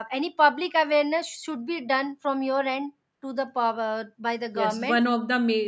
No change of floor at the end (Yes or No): No